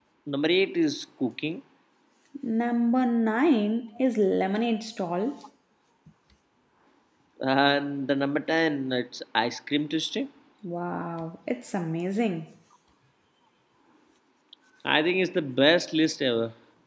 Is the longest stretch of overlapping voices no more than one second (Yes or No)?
Yes